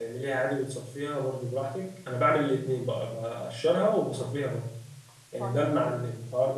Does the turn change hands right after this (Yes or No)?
No